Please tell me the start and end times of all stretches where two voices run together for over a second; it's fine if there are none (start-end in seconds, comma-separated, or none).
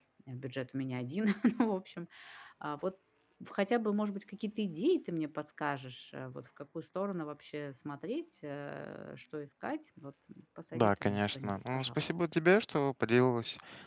10.7-12.0